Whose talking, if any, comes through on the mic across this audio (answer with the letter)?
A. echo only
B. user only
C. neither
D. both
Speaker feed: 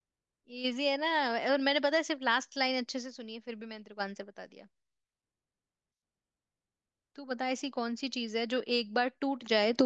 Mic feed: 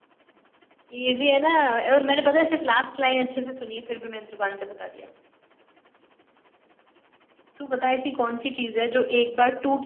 A